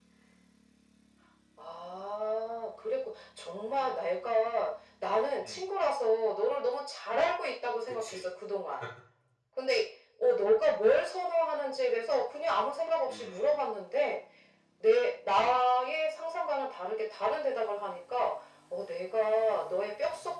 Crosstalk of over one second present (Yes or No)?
No